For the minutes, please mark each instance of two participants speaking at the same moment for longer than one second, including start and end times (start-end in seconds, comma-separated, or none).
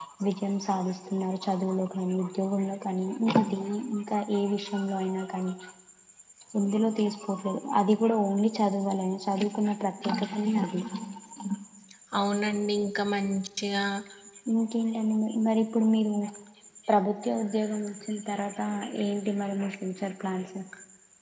none